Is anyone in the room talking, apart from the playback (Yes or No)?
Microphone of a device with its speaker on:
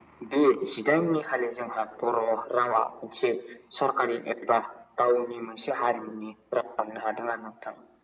No